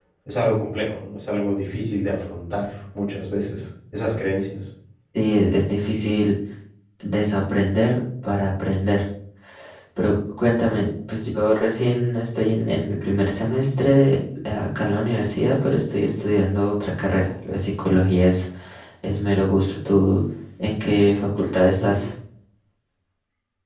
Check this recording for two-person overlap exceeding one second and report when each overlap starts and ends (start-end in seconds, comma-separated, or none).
none